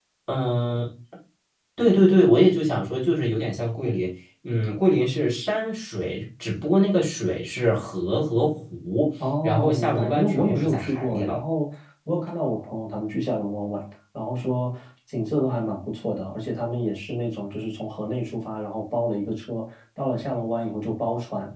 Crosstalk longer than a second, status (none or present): present